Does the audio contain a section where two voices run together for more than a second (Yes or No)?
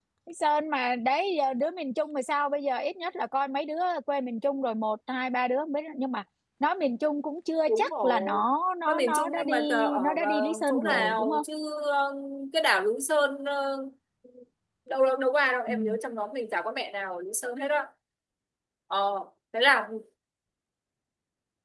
Yes